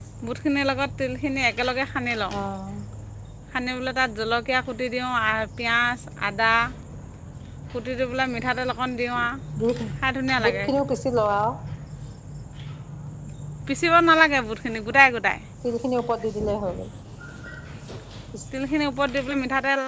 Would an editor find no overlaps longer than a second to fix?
Yes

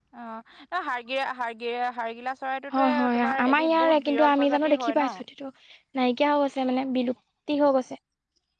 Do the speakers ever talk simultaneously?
Yes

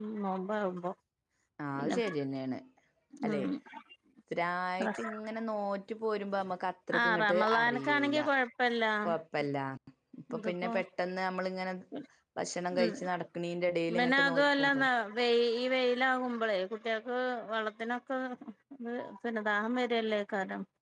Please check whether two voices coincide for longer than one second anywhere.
Yes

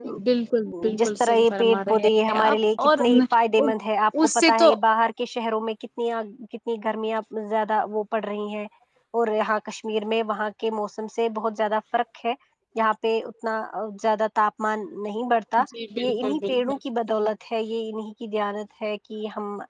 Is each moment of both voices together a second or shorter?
No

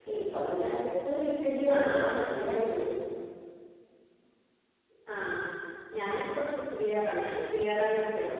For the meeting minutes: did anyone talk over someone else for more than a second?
No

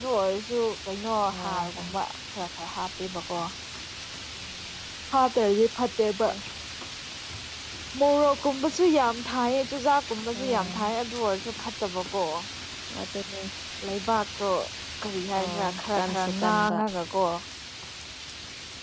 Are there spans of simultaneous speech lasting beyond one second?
Yes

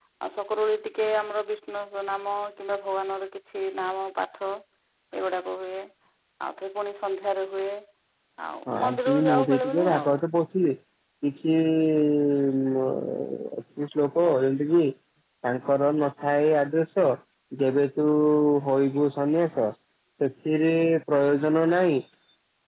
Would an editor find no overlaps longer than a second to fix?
No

